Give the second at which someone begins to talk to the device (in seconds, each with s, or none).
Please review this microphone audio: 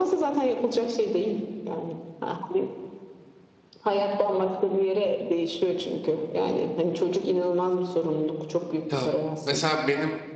8.9 s